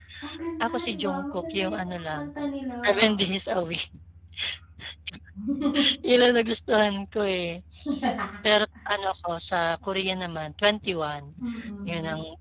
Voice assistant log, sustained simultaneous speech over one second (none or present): present